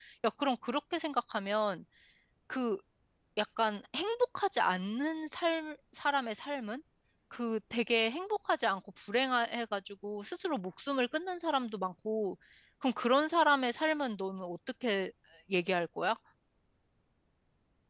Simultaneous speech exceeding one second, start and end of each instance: none

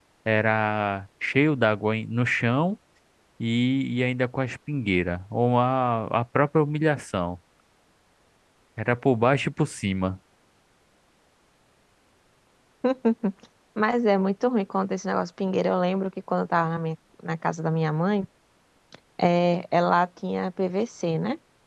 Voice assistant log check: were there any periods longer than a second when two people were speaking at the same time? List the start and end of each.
none

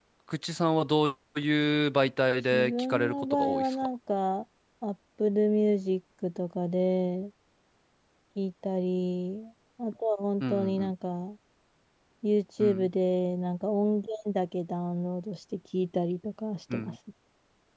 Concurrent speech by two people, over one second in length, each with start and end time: 2.5-3.8

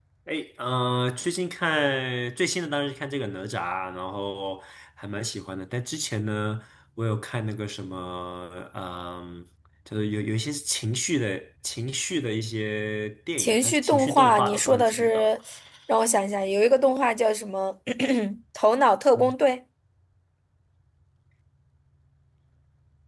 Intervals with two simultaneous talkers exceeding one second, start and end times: 13.4-15.3

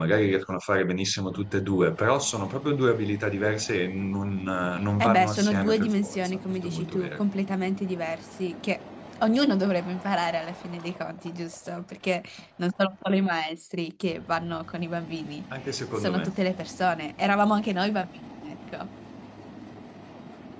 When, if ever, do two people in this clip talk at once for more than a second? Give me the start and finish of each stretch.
5.0-7.2

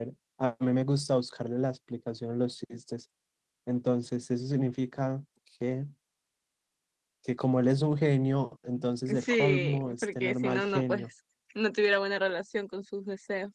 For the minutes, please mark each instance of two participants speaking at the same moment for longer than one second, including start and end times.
9.2-11.1

